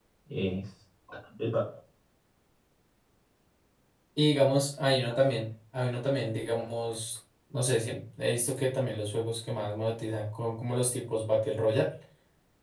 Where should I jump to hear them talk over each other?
none

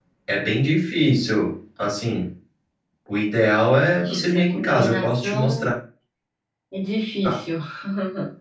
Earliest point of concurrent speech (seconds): 4 s

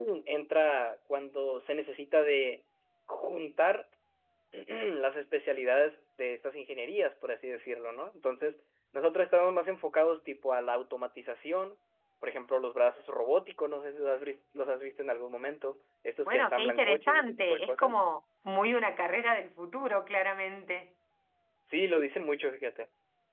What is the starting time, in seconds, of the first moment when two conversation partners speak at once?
16 s

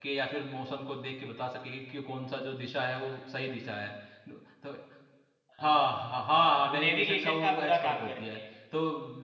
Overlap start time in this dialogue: 6 s

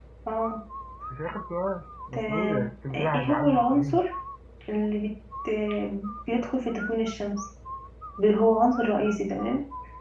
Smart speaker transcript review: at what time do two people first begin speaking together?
2 s

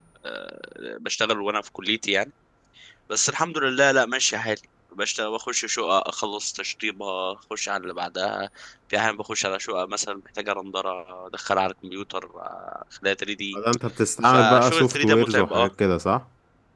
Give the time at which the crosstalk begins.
14 s

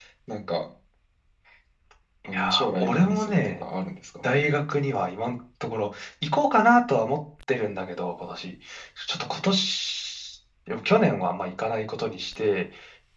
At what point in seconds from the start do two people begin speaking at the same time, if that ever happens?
2 s

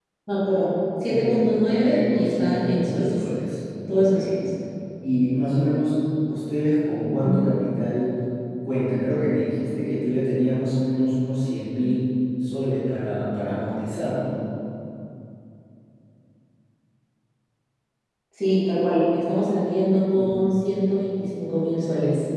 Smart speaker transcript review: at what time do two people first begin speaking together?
1 s

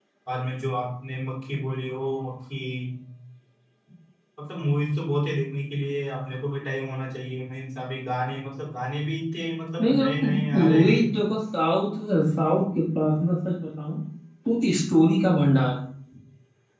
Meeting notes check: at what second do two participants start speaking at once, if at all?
10 s

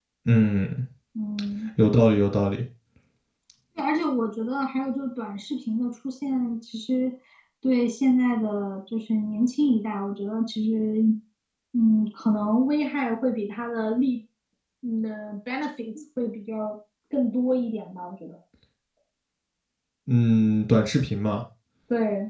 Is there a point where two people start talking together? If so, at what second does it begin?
none

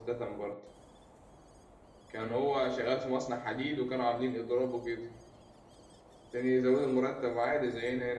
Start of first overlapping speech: none

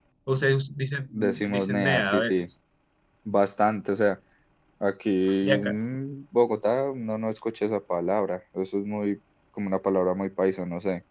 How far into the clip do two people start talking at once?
1 s

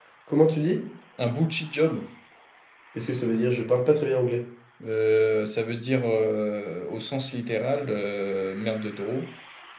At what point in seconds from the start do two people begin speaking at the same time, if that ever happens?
none

